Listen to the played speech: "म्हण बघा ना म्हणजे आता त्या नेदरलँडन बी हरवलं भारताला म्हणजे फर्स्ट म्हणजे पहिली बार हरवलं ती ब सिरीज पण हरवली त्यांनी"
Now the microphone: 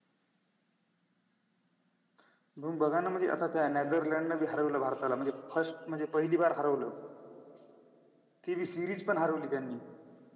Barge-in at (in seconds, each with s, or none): none